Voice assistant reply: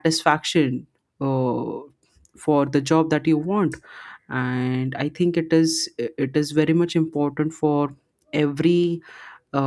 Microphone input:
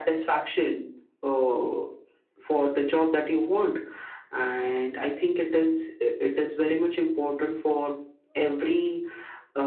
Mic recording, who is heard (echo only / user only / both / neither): echo only